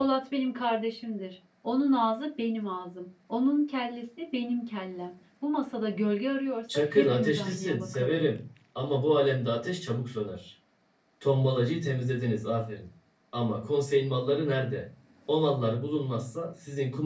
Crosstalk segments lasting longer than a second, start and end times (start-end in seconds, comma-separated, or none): 6.7-8.2